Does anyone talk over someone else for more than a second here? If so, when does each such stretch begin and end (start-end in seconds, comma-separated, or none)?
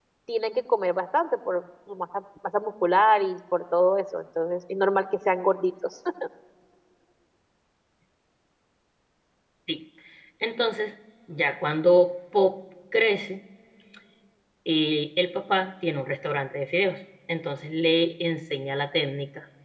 none